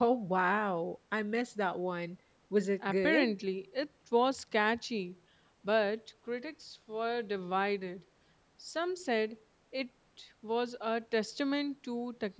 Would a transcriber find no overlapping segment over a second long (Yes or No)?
Yes